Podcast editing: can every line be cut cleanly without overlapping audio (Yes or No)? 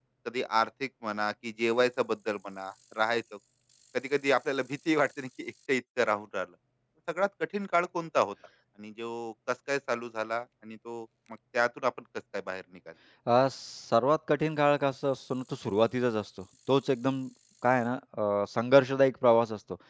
Yes